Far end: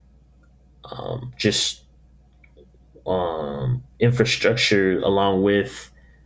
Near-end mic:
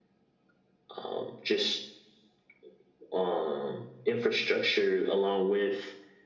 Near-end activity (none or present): none